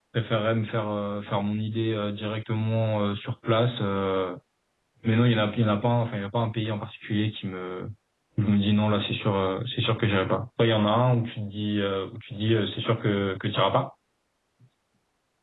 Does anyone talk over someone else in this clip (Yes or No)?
No